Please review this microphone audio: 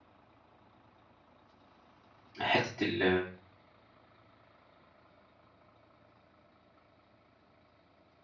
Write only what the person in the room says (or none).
حتّة ال